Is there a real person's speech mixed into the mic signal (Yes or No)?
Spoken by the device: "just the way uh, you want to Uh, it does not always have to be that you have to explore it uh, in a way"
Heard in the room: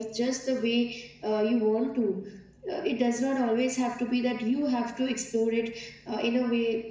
No